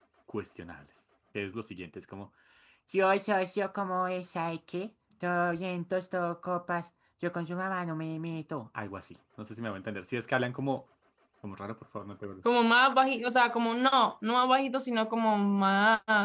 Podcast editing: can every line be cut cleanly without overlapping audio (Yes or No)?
Yes